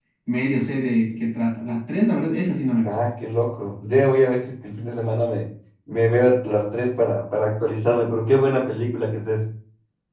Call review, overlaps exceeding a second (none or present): none